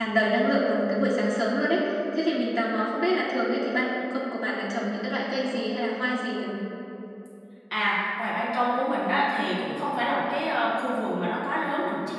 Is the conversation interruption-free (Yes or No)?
Yes